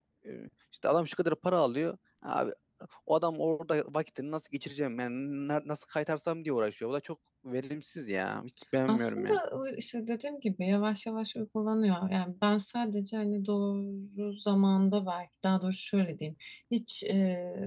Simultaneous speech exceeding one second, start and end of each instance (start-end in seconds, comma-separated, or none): none